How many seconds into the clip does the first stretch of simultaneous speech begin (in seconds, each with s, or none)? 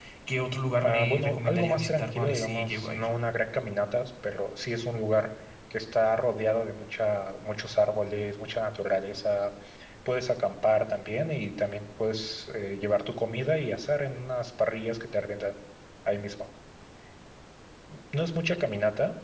0.8 s